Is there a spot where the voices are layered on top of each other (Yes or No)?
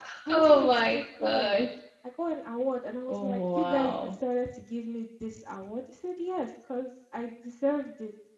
Yes